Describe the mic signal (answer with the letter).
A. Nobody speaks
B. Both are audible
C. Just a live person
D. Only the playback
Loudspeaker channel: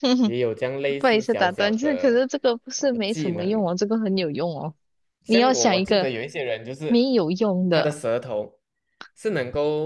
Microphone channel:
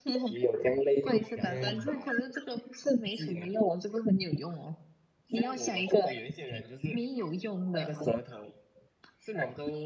B